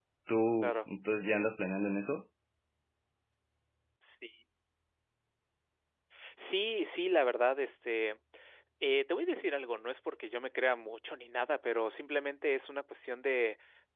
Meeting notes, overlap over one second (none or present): none